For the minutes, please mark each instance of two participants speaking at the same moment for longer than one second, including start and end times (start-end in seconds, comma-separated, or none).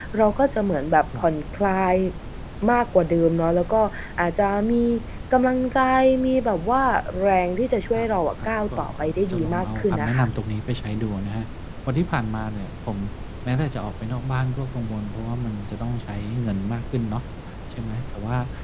8.4-10.3